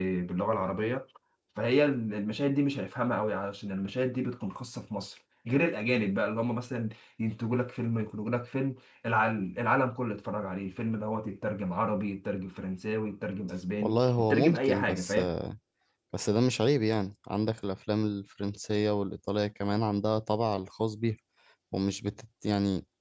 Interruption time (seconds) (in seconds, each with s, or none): 13.8 s